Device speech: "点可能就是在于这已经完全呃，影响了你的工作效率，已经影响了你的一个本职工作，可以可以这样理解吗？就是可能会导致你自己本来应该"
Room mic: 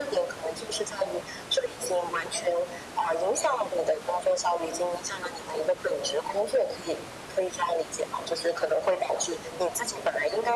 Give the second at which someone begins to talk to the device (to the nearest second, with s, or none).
none